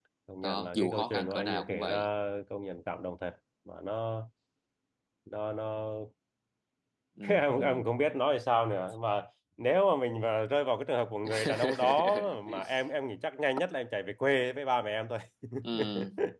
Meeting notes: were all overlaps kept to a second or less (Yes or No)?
No